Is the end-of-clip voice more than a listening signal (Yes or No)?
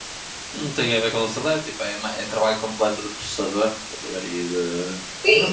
Yes